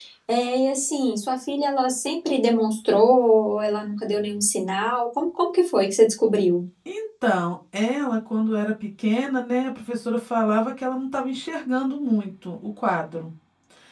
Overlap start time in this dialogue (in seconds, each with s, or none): none